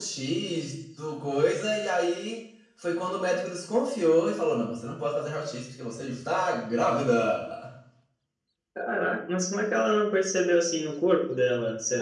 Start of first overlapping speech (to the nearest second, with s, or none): none